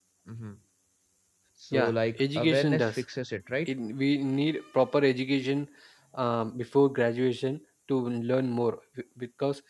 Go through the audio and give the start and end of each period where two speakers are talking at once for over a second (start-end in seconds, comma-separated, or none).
1.7-3.0